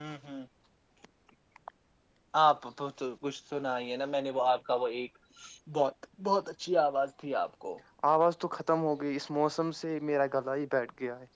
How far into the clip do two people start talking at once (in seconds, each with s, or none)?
none